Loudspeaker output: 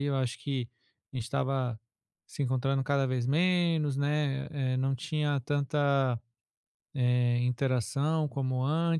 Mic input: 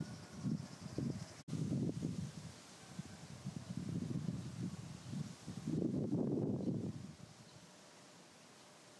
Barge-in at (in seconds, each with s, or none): none